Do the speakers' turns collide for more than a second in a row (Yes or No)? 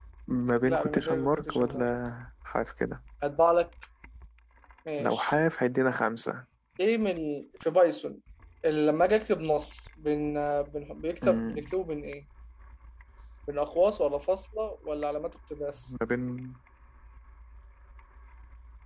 Yes